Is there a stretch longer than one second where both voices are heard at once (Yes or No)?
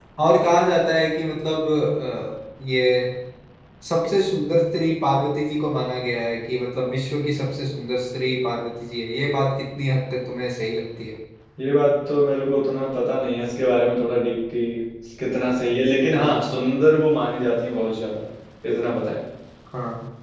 No